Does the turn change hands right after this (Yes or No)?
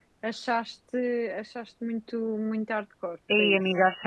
Yes